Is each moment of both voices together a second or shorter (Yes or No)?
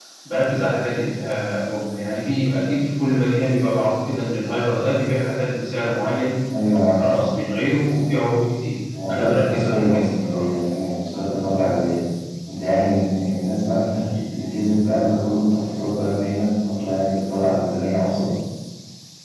No